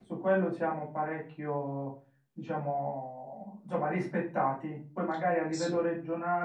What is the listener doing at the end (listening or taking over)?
listening